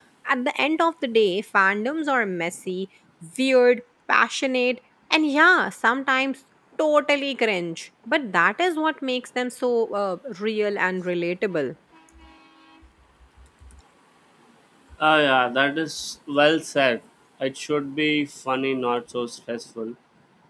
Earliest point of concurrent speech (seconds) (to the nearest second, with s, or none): none